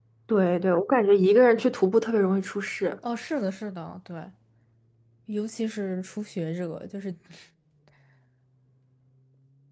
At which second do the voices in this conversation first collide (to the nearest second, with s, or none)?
none